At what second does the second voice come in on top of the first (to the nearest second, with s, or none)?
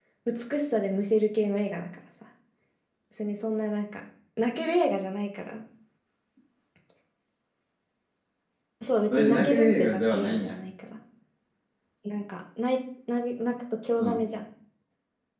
9 s